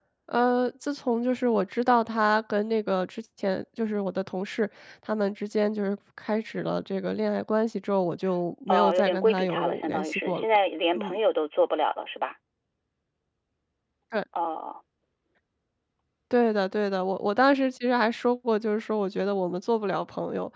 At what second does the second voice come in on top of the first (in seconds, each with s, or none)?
8.7 s